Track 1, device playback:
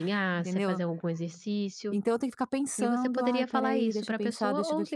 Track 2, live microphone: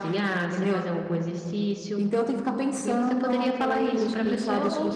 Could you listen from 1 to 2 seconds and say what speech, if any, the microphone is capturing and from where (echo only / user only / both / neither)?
echo only